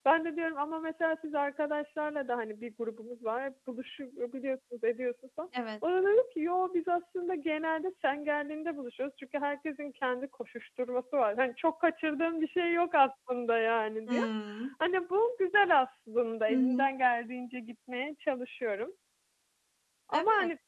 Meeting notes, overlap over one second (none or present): none